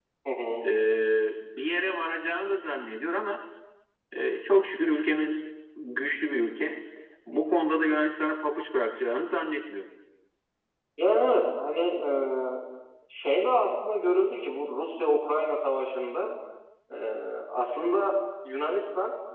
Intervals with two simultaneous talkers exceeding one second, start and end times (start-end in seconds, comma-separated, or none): none